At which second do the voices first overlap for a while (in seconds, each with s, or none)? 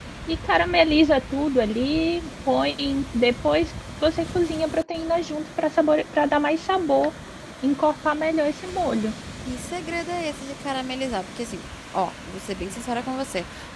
none